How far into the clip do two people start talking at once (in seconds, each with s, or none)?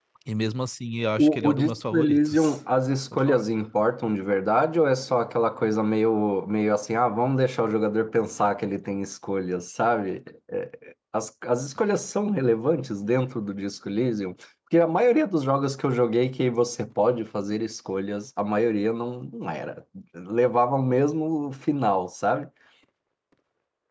1.2 s